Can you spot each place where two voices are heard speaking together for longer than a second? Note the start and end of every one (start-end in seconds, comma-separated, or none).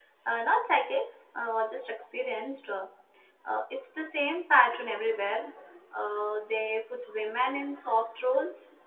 none